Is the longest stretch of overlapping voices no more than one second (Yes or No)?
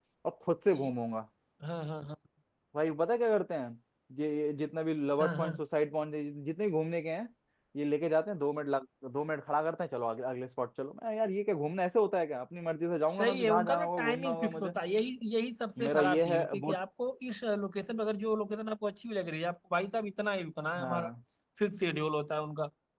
No